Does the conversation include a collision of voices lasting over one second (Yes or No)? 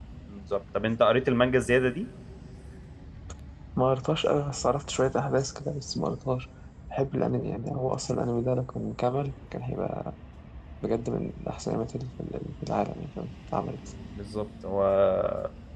No